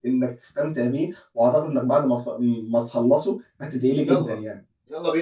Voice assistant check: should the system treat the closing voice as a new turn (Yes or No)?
Yes